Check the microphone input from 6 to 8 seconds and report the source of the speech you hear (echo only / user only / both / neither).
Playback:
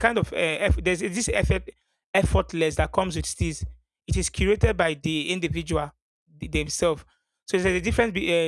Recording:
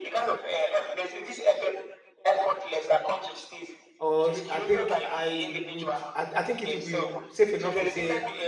both